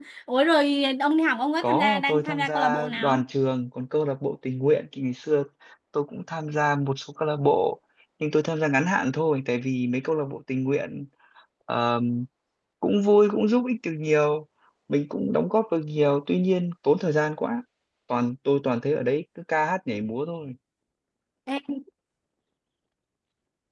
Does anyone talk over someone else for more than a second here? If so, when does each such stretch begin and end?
1.6-3.2

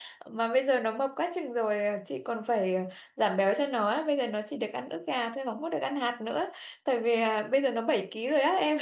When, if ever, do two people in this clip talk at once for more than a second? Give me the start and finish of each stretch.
none

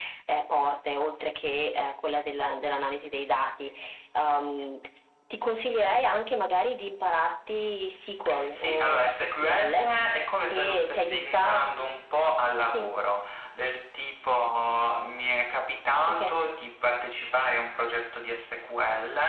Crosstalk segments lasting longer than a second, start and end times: 8.5-9.7, 10.5-11.7

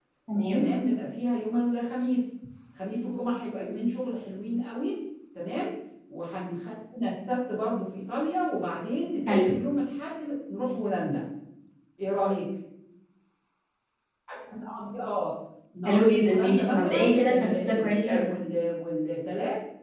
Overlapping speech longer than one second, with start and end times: 15.8-18.2

